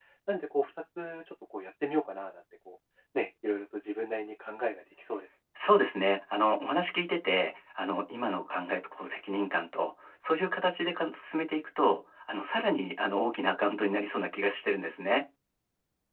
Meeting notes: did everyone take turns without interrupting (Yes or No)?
Yes